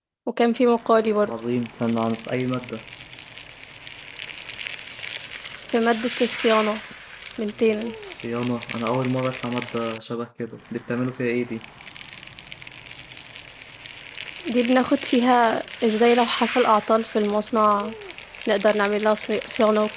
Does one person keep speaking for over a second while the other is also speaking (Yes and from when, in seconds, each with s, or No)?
No